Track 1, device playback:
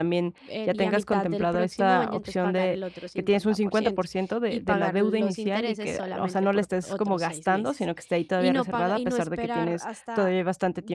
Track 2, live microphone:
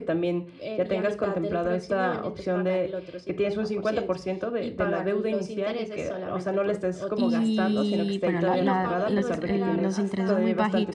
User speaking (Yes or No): Yes